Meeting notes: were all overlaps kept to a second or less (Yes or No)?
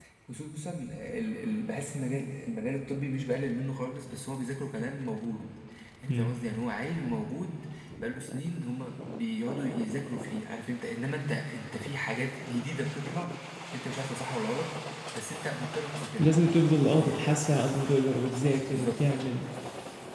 Yes